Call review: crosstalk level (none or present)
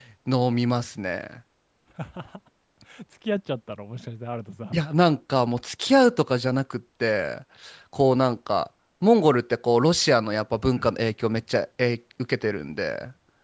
none